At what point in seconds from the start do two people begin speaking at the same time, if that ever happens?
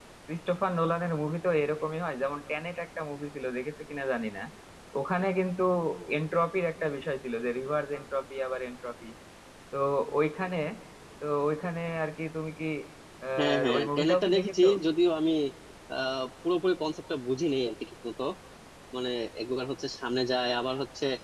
13 s

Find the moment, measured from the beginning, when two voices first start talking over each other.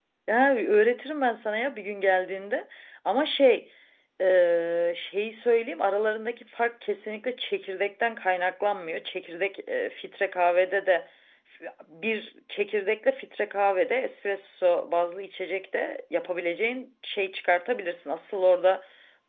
none

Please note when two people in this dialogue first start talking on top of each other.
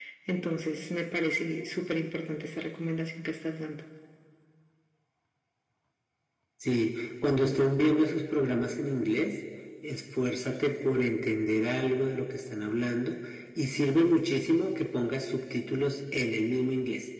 none

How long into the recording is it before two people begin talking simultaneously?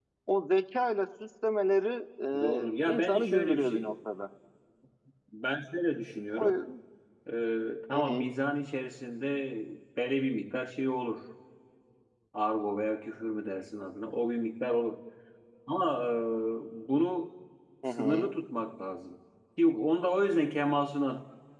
2 s

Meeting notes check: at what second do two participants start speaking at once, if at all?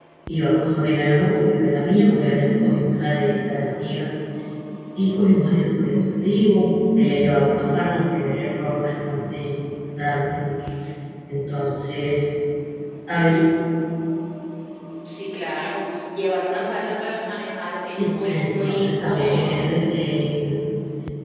18 s

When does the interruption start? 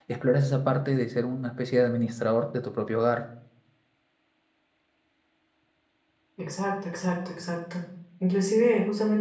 none

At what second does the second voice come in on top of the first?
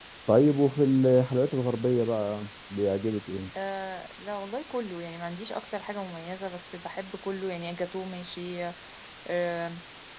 none

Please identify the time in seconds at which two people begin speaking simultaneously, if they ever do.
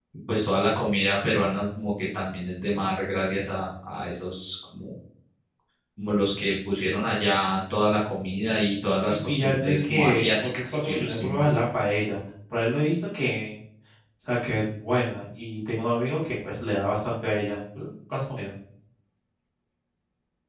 9 s

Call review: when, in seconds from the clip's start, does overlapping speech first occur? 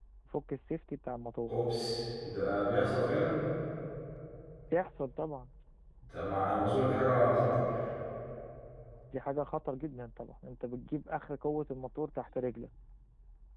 none

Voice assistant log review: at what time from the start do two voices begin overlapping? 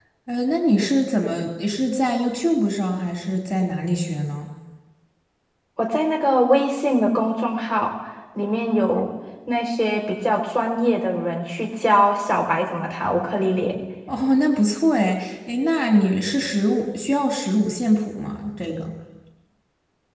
none

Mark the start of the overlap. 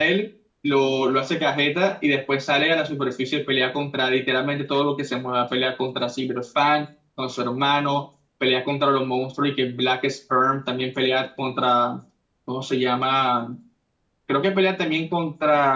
none

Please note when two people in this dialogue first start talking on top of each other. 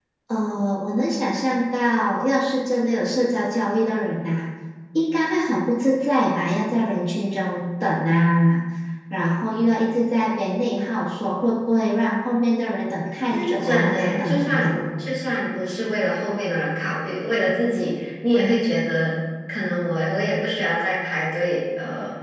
13 s

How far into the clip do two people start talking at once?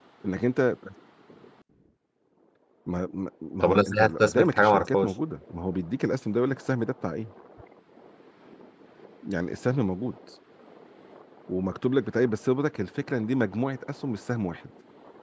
4 s

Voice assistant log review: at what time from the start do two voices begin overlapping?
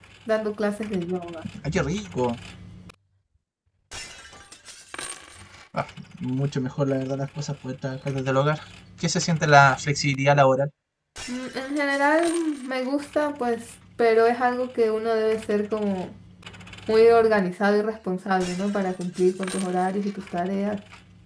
none

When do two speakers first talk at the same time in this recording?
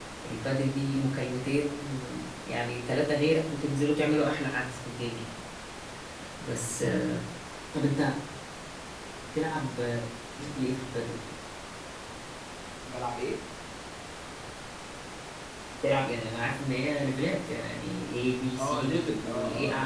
19 s

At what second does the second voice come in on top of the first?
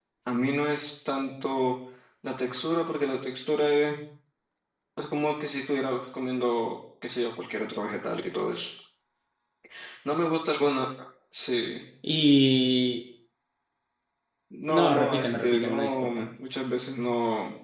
15 s

